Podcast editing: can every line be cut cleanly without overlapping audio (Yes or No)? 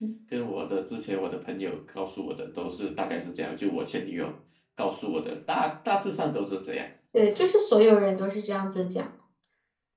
Yes